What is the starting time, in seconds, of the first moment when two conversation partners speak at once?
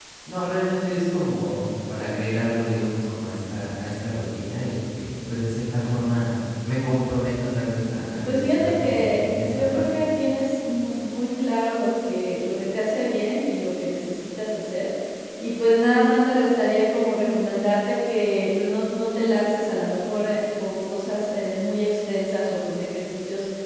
8.2 s

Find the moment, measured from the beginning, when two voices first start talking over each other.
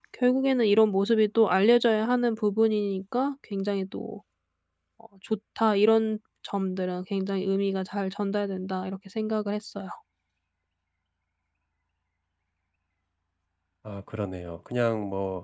none

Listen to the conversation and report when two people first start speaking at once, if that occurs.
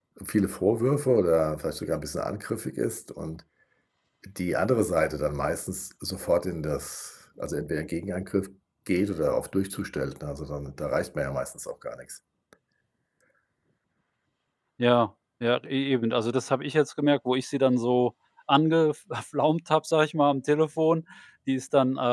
none

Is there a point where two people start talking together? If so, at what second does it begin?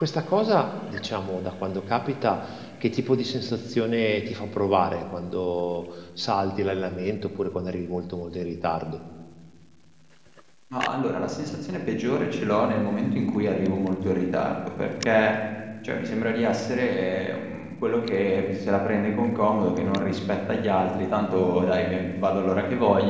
none

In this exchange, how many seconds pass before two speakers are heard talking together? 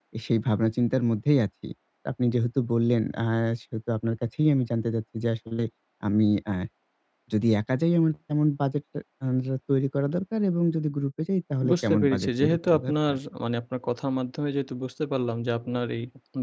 11.6 s

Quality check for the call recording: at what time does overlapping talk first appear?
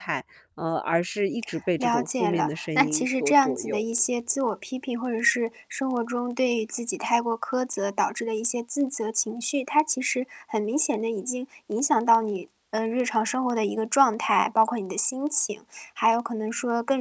1.8 s

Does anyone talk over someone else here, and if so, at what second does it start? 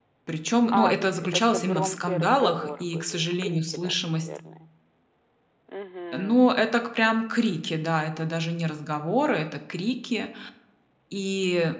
0.7 s

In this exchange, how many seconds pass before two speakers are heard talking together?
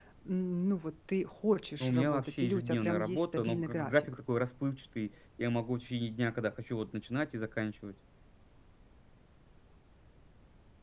1.8 s

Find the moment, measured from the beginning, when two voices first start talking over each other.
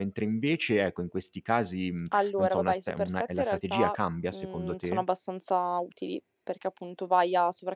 2.1 s

